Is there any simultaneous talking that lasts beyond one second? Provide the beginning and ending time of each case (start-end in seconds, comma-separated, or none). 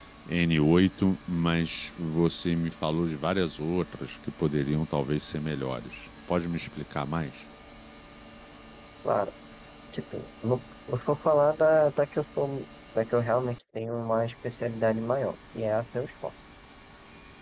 none